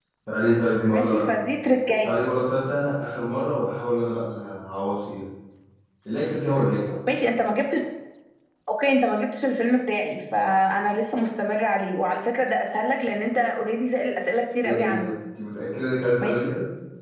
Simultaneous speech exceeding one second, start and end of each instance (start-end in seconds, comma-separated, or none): none